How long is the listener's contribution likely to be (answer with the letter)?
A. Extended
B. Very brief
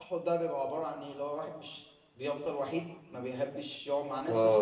A